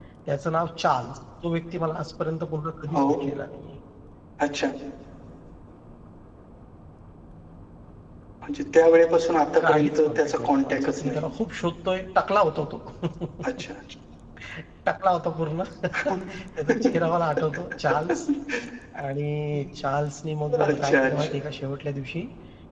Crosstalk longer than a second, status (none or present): present